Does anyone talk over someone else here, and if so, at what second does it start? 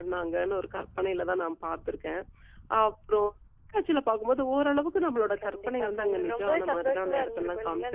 5.4 s

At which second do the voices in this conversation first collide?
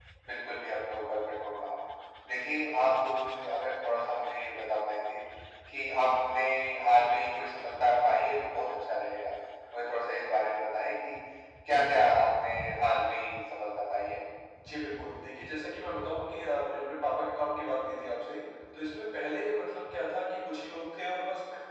none

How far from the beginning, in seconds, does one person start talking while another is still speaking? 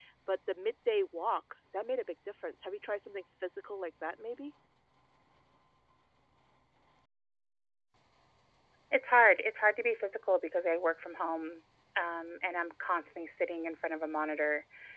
none

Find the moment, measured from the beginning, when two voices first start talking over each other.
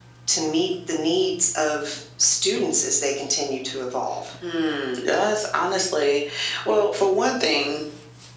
none

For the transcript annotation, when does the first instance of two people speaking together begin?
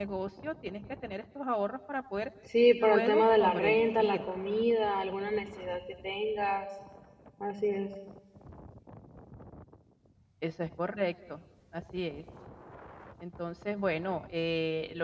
2.8 s

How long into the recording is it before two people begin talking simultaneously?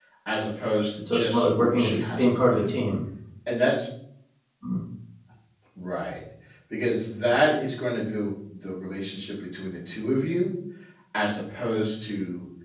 1.1 s

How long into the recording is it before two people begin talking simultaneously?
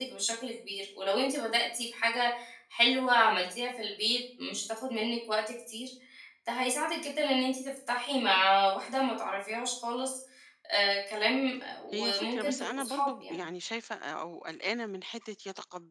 11.9 s

